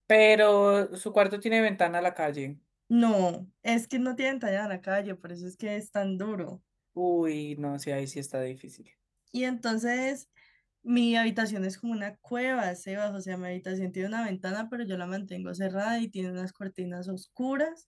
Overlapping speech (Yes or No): No